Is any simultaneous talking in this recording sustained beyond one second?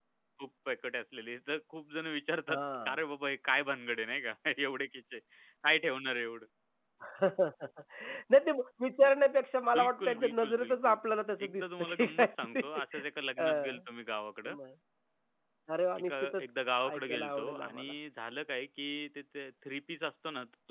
Yes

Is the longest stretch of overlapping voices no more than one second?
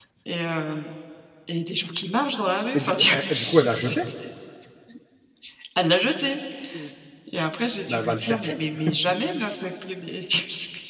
No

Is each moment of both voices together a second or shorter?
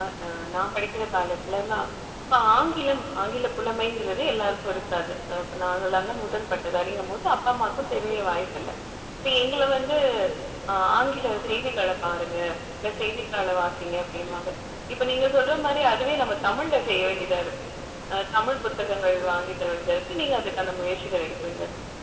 Yes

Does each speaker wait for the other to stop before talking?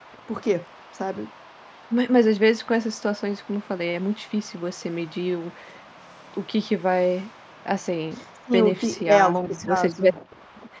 No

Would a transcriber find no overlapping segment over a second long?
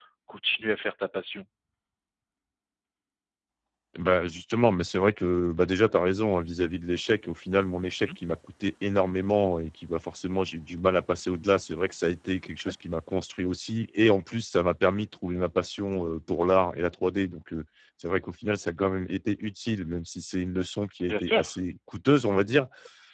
Yes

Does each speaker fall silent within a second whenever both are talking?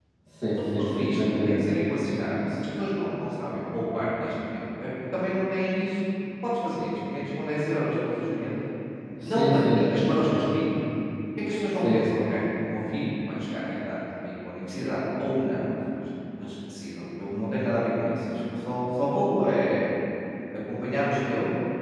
No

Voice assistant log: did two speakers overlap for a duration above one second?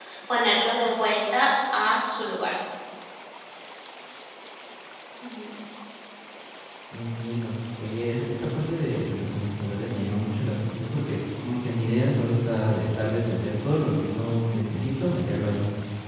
No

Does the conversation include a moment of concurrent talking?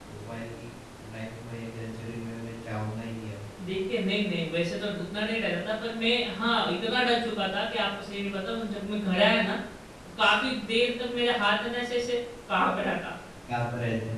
No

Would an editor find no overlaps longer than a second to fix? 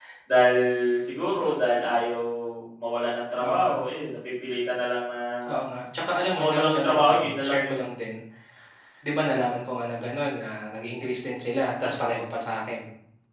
No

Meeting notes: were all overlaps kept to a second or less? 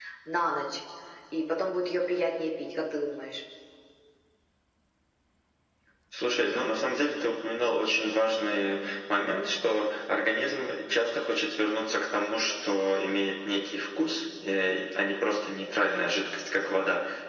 Yes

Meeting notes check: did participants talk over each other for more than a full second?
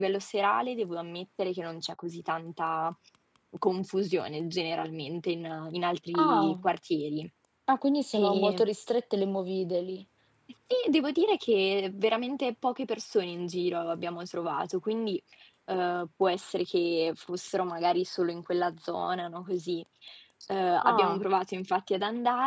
No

